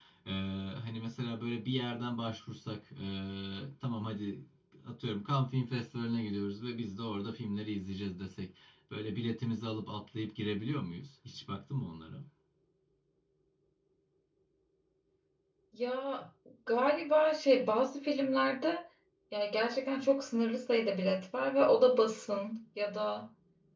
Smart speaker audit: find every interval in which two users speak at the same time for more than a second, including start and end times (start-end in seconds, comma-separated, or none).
none